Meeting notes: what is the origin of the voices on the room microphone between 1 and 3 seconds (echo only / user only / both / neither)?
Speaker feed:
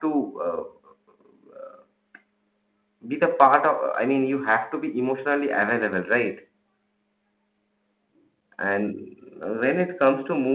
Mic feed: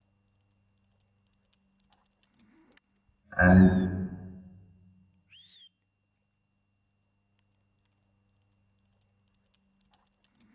neither